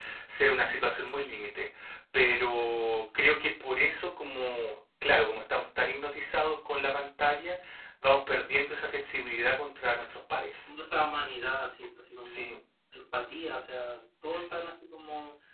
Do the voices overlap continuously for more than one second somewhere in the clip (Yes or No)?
No